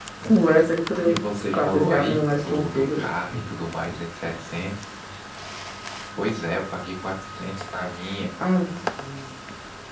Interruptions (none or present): present